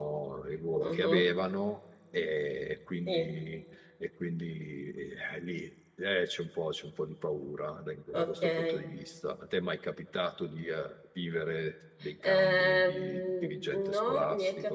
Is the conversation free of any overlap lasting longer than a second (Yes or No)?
No